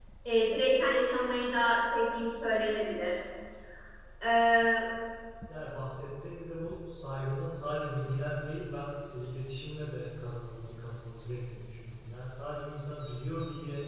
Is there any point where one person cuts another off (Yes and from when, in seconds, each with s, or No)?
No